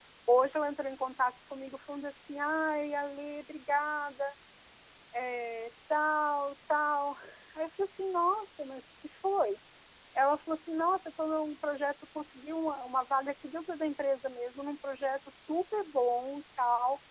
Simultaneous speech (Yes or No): No